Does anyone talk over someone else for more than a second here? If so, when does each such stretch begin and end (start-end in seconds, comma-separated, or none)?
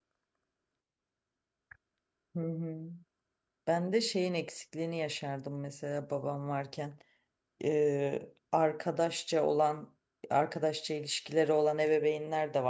none